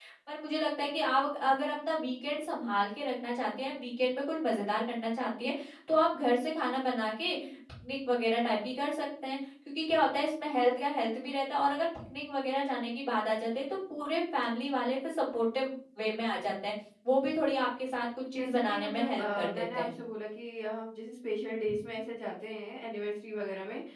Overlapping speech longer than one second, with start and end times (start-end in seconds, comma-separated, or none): 18.4-19.9